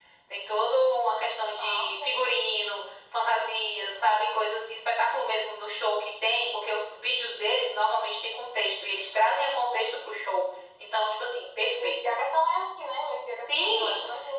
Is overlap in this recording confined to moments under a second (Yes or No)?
Yes